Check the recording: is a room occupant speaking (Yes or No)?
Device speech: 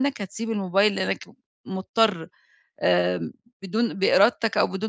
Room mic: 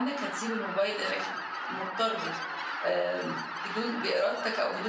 No